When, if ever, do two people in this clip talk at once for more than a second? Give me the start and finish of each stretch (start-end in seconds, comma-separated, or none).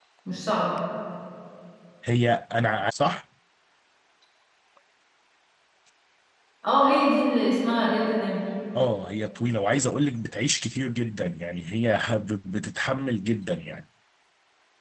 none